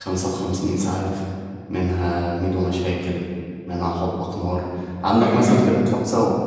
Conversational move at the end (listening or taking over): listening